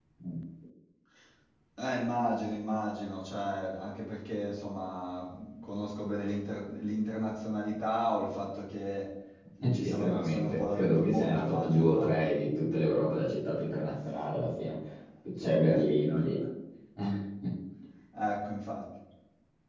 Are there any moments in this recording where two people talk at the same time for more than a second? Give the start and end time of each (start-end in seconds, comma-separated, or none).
9.8-12.1